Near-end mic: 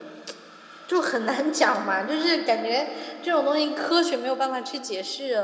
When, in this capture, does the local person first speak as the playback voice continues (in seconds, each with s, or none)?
none